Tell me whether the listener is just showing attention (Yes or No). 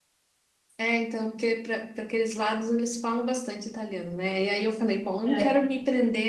Yes